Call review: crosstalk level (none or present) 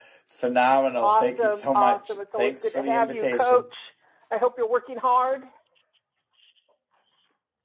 present